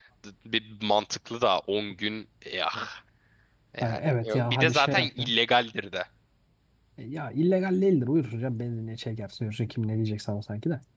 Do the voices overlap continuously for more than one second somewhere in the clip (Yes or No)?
Yes